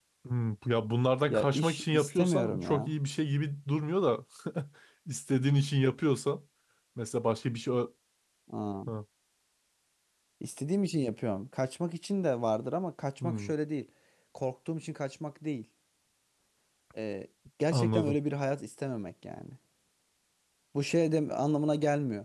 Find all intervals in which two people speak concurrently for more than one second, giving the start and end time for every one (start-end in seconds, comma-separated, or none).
1.3-2.9